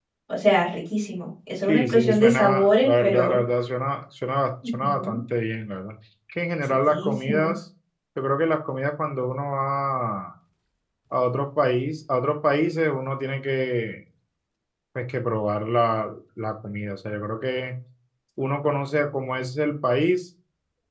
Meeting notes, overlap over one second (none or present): present